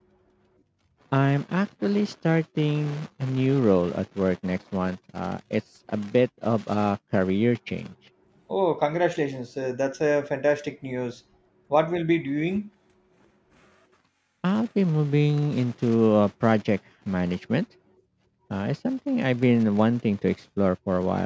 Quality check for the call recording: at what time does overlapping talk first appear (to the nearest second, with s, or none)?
none